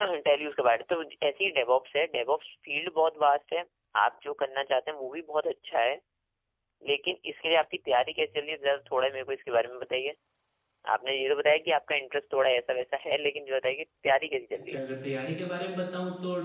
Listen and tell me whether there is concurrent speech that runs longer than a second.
No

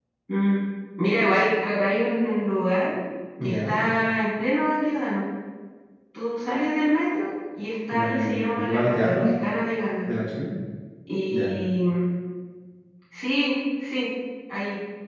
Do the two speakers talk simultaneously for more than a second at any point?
Yes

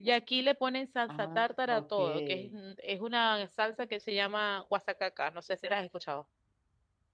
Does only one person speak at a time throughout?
No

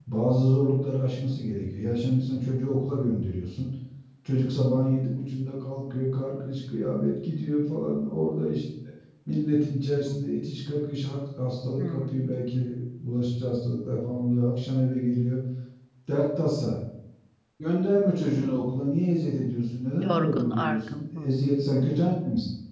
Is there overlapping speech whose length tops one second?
Yes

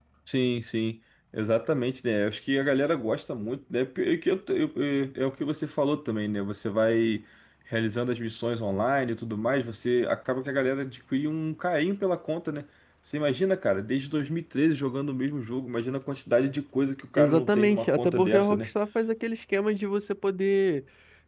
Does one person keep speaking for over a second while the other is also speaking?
Yes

